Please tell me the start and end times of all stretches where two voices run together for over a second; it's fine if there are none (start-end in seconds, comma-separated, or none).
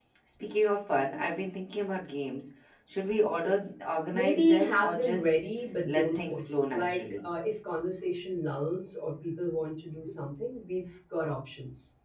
4.1-5.4, 5.9-7.3